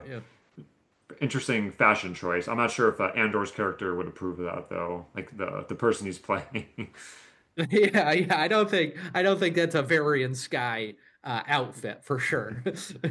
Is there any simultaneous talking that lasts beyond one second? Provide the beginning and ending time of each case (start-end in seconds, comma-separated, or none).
none